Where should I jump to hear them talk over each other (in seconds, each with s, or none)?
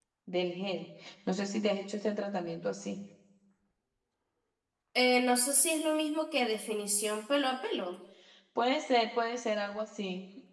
none